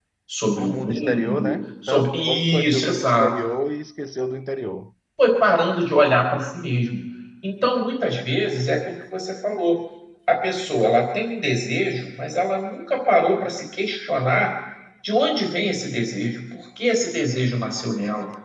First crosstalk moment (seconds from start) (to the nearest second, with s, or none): 1 s